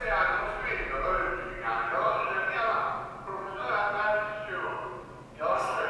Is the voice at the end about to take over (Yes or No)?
No